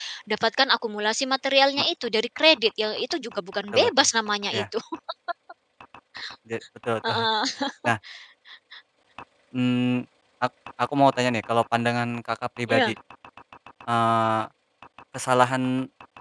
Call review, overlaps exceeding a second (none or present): none